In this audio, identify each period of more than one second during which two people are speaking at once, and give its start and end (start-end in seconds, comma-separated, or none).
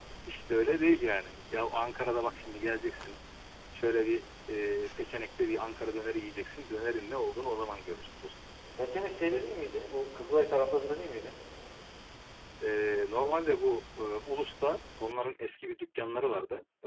none